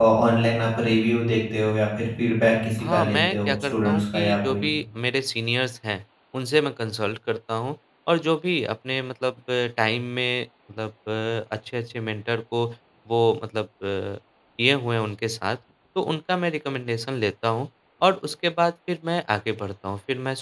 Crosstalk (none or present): present